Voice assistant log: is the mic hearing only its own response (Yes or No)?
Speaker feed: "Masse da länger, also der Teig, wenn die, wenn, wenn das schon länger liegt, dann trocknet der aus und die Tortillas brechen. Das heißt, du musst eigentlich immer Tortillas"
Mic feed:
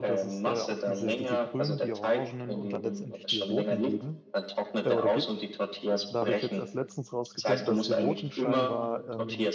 No